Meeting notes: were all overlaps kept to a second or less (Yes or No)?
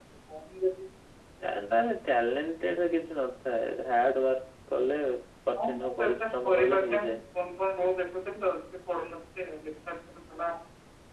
No